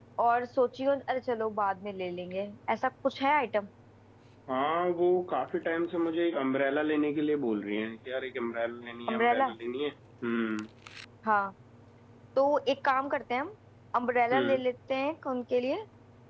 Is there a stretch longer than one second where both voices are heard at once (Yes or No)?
No